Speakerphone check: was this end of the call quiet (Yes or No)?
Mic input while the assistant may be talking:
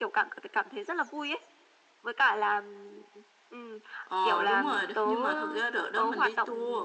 Yes